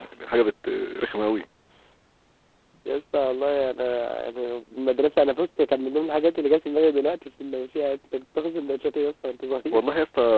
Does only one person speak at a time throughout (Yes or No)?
Yes